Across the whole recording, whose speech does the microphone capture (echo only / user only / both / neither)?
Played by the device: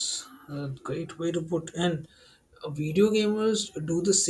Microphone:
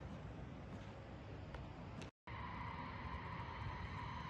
neither